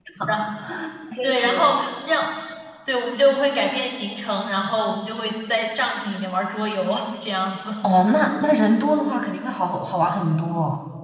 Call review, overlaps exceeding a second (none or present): none